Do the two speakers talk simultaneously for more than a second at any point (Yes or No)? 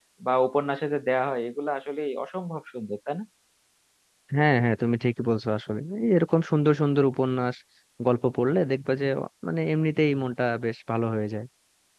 No